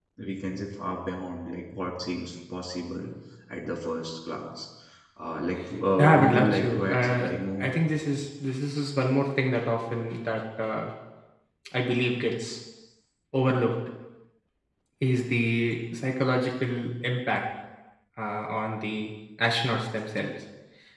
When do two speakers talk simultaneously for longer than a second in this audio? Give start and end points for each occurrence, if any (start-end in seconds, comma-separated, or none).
6.0-7.7